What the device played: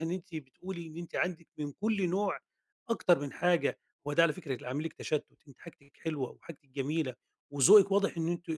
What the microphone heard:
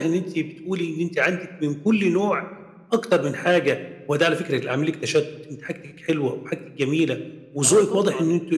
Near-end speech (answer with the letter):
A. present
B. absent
A